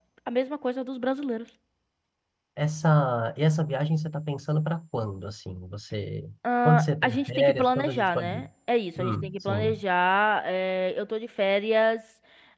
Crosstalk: present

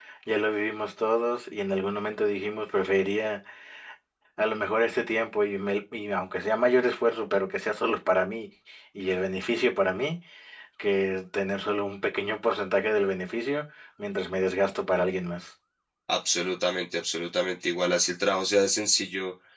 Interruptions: none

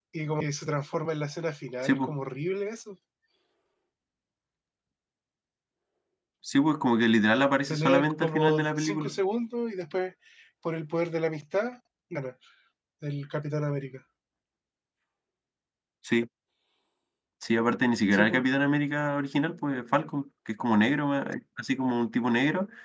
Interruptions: present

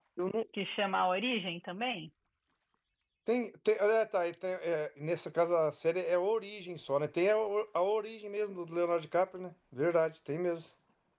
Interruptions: none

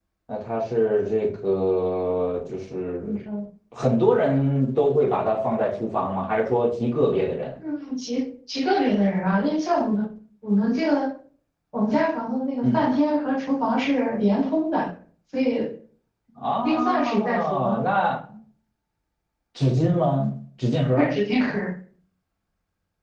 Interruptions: present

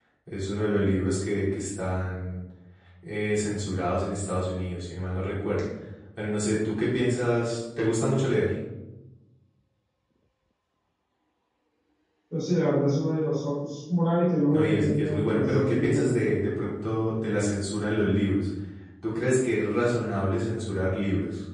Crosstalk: present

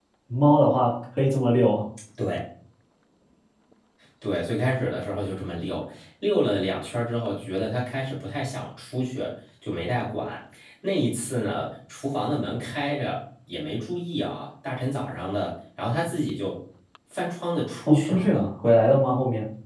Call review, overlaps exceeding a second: none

